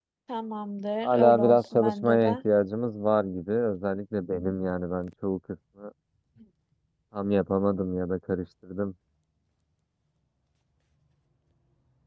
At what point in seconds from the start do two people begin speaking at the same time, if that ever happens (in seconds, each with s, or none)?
1.0 s